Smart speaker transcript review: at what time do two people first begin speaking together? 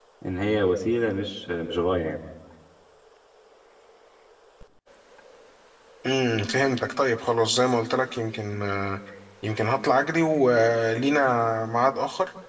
none

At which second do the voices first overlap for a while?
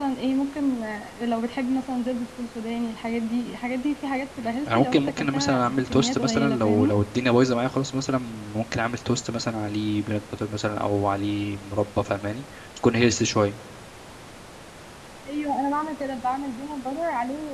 4 s

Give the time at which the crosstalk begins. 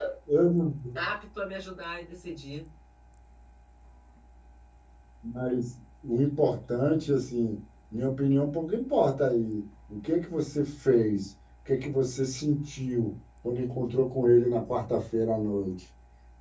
none

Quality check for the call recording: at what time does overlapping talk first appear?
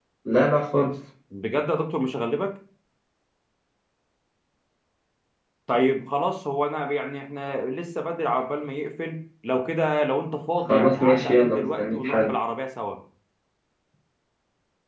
11 s

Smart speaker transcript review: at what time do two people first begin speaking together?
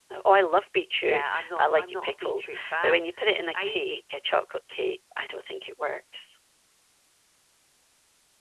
1 s

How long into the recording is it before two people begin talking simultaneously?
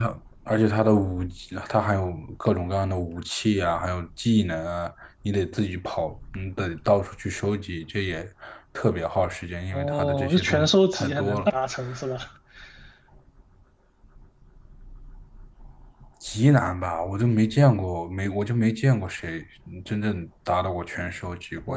10 s

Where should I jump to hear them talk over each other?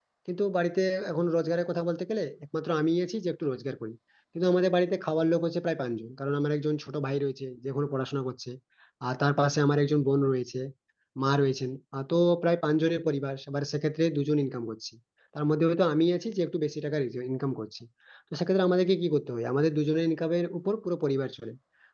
none

